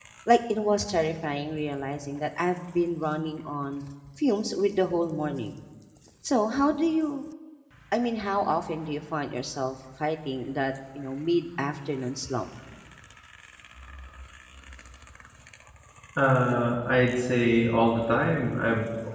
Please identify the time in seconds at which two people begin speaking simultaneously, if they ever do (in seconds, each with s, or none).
none